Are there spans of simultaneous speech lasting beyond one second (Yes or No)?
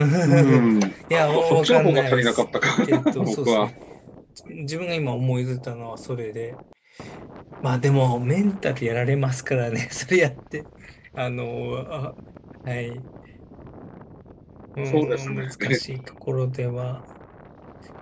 Yes